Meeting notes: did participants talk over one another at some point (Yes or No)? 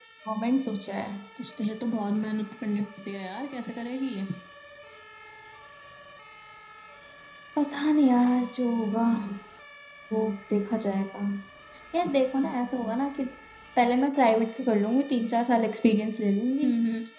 No